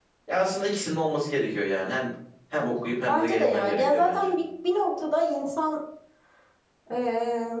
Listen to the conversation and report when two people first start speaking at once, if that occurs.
3.1 s

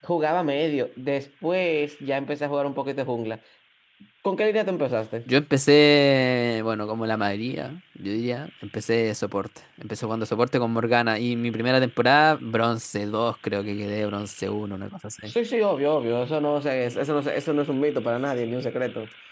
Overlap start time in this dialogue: none

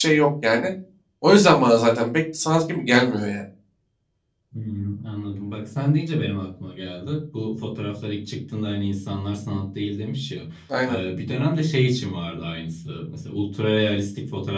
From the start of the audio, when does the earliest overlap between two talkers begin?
none

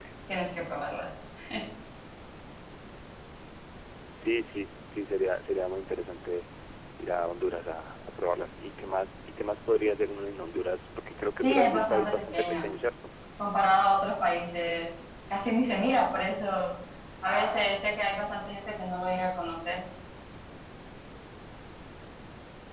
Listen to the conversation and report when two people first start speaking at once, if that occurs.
11.4 s

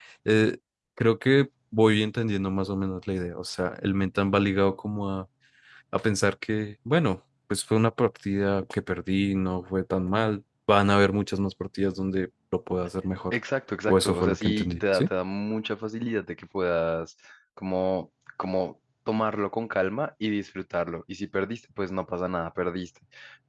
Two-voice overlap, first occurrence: 13.9 s

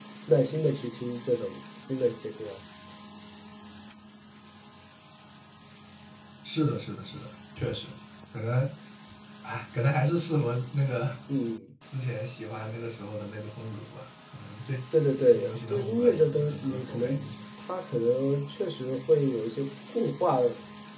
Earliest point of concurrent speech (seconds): 15.2 s

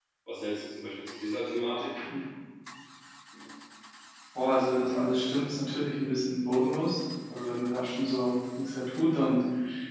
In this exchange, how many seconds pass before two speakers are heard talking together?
none

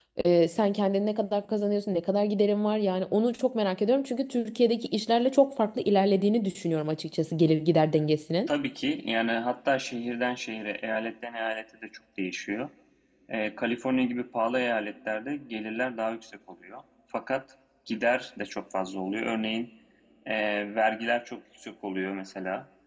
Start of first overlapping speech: none

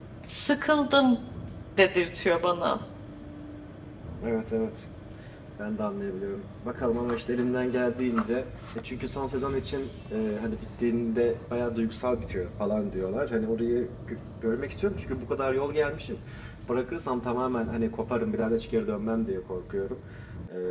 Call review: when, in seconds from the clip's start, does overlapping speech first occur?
none

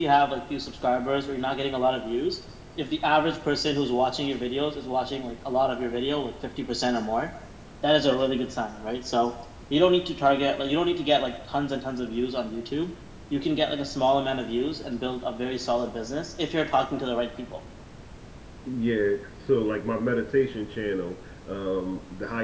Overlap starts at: none

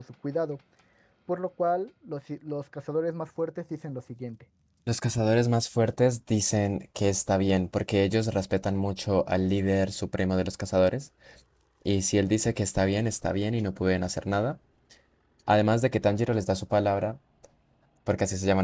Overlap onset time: none

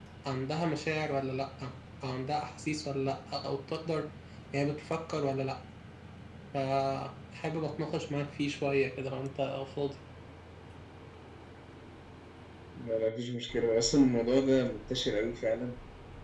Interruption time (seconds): none

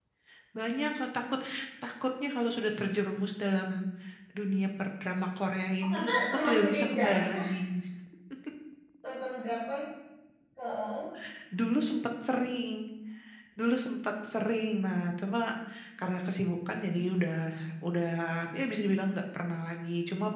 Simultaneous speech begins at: 5.9 s

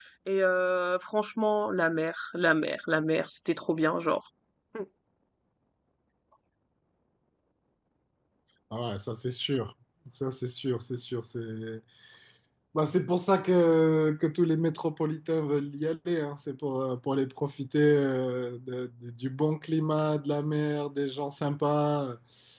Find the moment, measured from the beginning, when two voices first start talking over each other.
none

